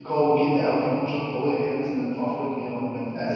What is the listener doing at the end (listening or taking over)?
taking over